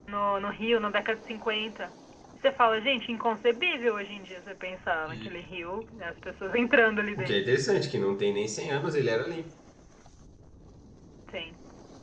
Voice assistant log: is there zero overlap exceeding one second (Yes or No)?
Yes